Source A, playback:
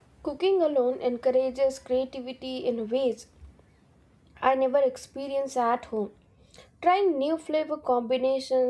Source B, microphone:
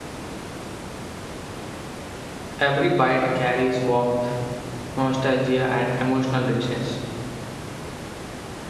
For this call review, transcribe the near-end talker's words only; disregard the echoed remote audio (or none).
Every bite carries warmth, nostalgia, and emotional richness.